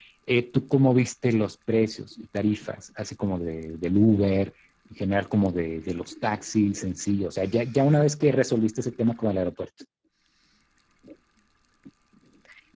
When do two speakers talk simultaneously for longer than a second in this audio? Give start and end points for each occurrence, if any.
none

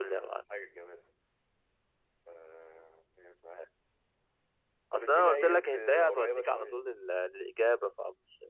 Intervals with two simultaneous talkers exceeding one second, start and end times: 4.9-6.8

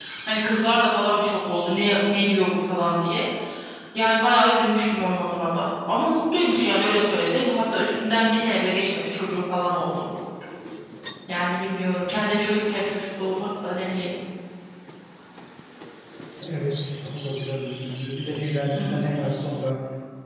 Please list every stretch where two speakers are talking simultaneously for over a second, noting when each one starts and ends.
none

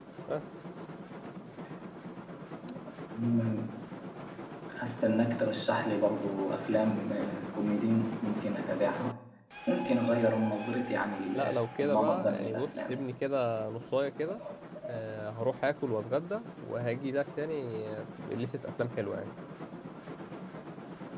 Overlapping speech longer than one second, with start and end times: 11.3-13.0

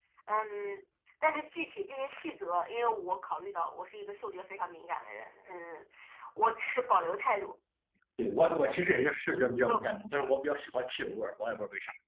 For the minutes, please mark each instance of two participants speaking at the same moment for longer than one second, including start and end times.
none

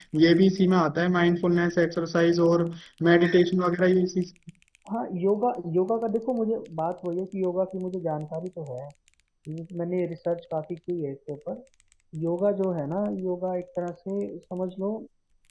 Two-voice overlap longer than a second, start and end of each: none

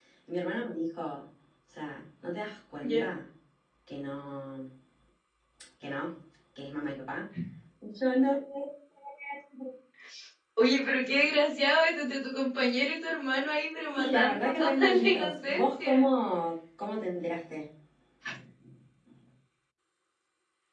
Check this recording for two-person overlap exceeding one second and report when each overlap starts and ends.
14.0-16.1

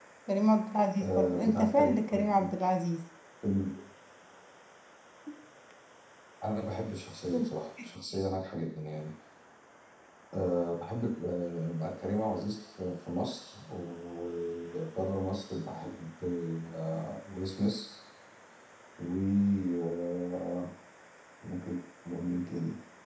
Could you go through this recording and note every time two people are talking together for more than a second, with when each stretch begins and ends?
1.0-2.5

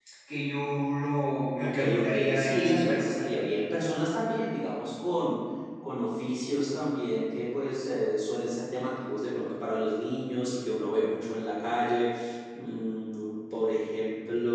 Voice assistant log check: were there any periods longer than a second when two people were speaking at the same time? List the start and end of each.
1.6-3.2

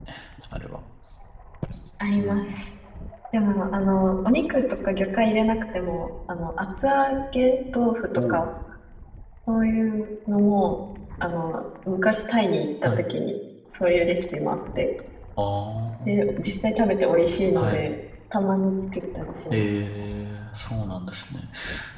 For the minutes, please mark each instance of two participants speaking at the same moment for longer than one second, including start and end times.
none

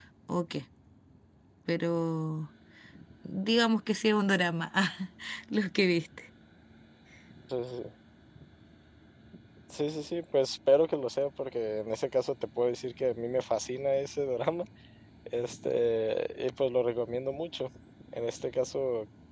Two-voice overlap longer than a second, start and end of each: none

